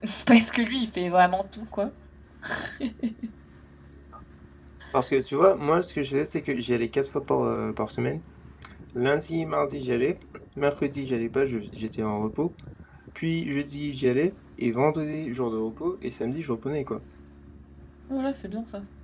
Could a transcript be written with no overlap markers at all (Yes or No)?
Yes